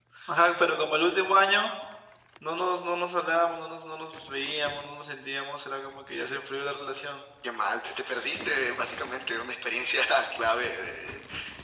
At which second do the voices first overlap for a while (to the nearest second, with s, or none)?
none